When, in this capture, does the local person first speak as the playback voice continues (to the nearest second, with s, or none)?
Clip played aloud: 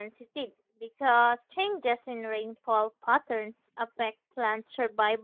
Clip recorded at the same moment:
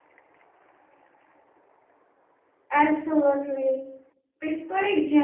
3 s